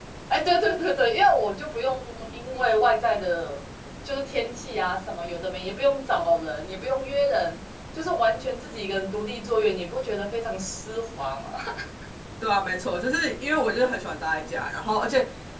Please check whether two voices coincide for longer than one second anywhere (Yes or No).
No